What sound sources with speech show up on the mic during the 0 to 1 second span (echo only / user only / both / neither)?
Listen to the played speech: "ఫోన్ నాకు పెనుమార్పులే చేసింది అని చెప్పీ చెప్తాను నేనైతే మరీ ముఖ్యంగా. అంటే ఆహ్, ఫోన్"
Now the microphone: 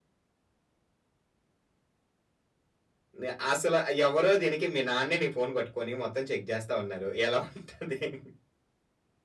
neither